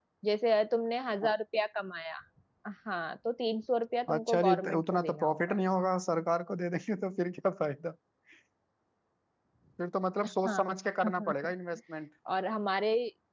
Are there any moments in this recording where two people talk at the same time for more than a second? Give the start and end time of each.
4.1-5.4

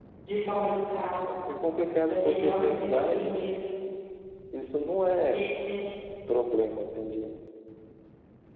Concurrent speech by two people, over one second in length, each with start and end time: 2.1-3.5

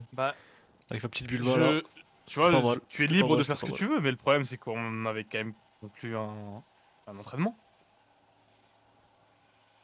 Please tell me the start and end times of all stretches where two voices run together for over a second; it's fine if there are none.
2.4-3.8

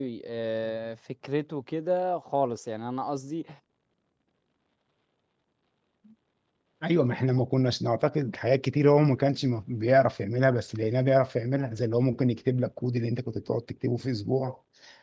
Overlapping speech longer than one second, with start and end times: none

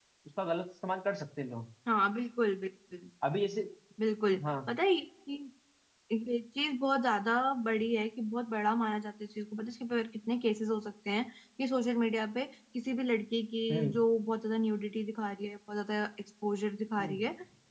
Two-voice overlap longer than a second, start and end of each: none

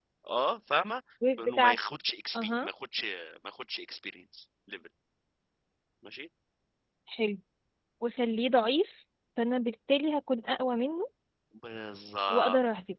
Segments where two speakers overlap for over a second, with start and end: none

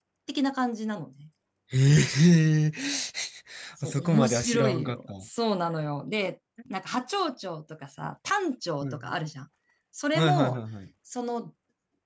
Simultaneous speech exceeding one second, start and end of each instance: 3.8-5.2

